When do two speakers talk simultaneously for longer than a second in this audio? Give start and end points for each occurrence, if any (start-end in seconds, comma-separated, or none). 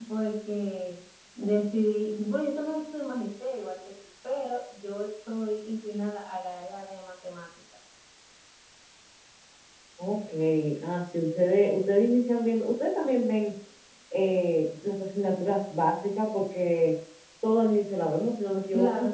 none